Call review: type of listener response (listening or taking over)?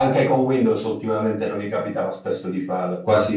listening